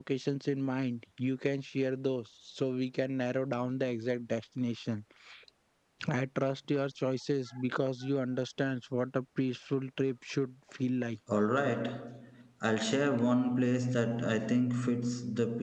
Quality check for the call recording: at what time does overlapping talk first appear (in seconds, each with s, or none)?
none